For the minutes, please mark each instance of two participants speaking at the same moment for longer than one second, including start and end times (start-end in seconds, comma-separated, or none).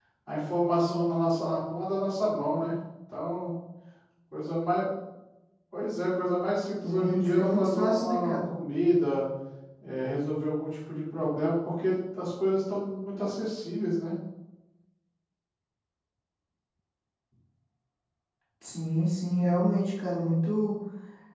6.8-8.5